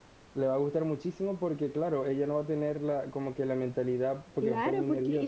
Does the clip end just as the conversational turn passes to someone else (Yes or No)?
Yes